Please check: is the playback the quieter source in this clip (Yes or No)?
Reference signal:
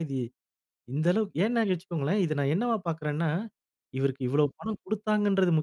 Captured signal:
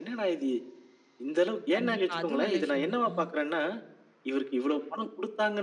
No